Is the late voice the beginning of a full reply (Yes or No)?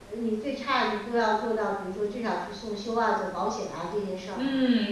Yes